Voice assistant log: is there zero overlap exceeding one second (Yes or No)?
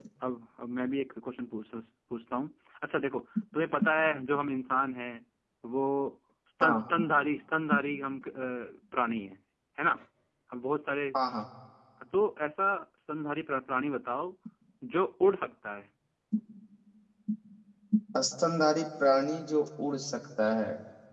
Yes